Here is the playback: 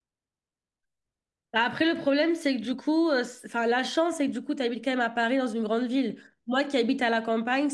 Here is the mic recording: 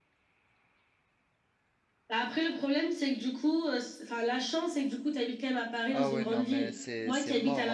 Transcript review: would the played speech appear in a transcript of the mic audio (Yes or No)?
Yes